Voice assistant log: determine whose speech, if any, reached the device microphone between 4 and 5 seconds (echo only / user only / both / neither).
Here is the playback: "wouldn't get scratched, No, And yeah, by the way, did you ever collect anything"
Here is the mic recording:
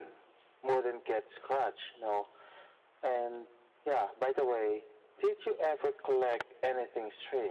echo only